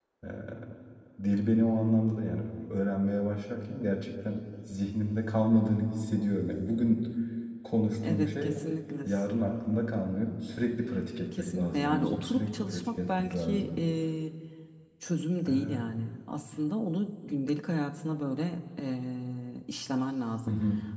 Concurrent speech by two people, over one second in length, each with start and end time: 11.4-13.8

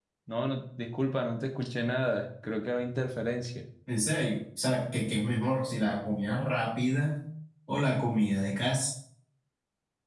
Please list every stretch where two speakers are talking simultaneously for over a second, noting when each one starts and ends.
none

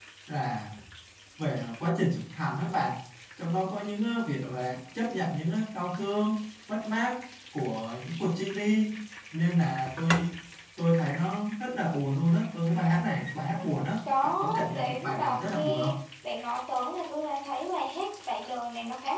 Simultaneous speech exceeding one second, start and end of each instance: 14.2-15.9

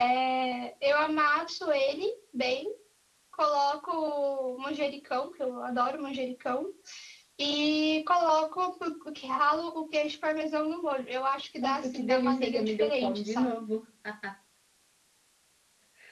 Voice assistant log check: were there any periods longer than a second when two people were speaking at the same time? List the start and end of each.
11.6-13.6

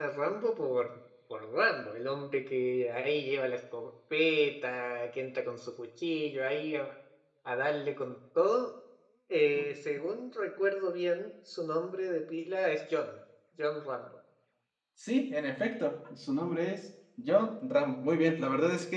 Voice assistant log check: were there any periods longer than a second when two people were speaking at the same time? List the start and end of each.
none

